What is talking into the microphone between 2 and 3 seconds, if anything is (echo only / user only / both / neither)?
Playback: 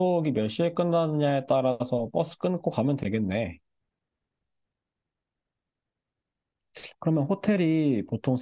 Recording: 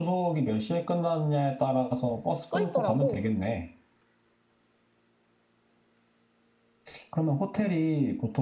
both